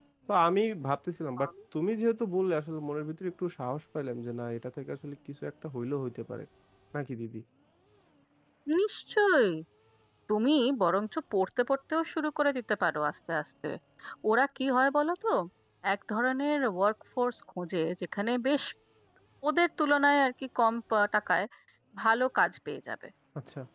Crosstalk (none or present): none